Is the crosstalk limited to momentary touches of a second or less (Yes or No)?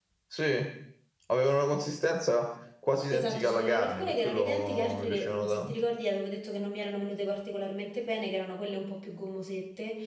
No